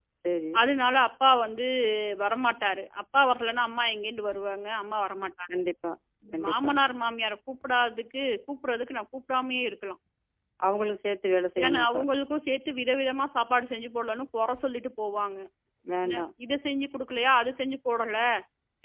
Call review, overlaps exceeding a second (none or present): none